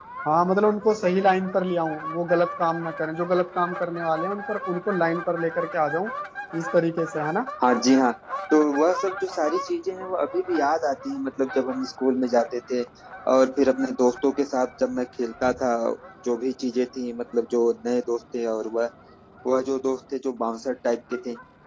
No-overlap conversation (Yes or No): Yes